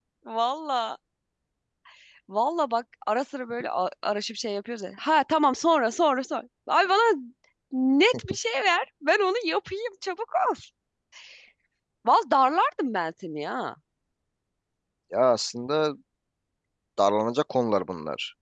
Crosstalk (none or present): none